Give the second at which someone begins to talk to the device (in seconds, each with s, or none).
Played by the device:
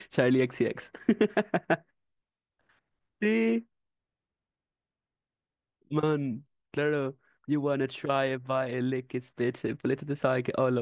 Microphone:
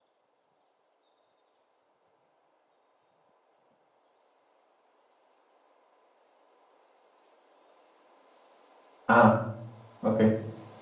9.1 s